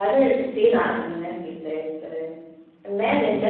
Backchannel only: Yes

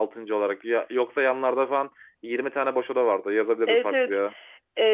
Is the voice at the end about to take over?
Yes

